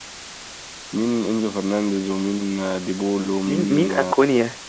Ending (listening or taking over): taking over